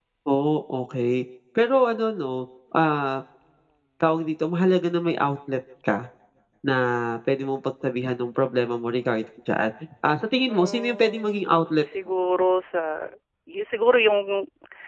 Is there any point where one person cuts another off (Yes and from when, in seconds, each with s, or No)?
Yes, from 10.5 s